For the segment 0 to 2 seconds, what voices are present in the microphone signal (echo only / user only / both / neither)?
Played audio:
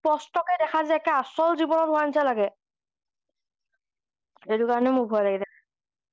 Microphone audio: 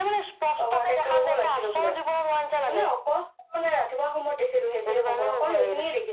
both